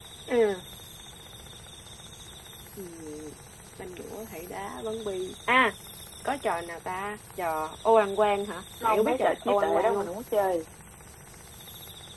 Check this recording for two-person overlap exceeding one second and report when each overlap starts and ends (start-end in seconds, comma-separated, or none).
8.8-10.1